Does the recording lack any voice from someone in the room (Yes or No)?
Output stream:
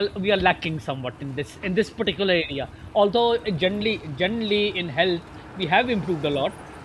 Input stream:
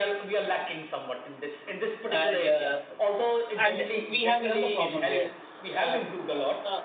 No